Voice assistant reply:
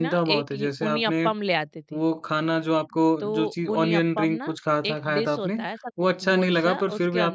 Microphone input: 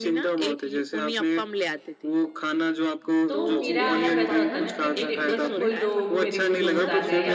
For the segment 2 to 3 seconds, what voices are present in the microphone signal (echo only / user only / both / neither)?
echo only